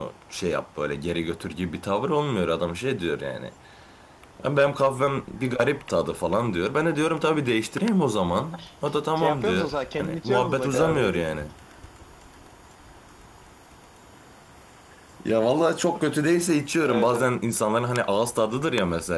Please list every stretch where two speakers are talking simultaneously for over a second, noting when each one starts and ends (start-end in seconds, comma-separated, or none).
9.2-11.2